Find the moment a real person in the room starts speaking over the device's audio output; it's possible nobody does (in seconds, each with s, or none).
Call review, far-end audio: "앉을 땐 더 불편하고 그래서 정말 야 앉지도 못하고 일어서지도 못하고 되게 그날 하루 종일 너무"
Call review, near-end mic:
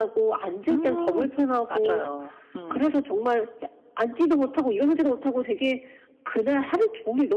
0.7 s